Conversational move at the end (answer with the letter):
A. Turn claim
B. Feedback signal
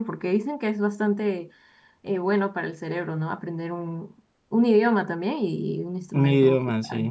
A